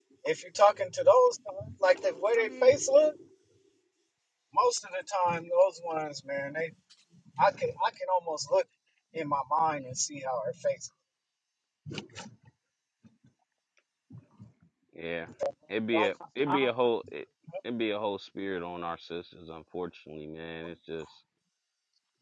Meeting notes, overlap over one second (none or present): none